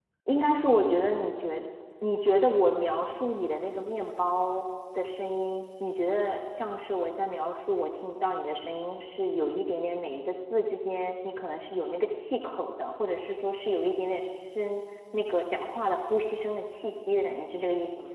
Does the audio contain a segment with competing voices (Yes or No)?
No